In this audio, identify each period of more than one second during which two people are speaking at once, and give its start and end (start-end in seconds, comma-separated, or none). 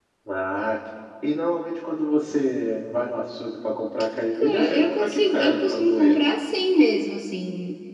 4.3-6.1